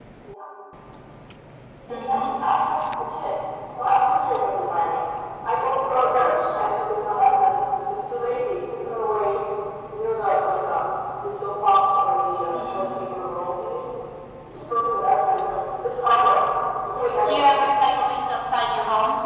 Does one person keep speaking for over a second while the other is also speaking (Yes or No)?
No